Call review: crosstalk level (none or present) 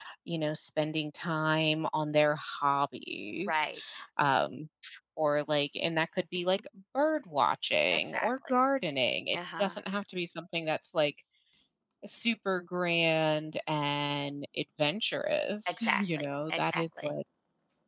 present